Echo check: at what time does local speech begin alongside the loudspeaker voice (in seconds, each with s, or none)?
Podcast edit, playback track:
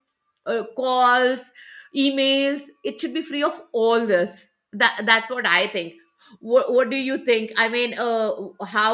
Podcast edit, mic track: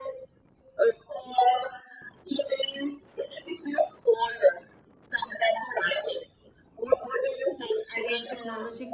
7.9 s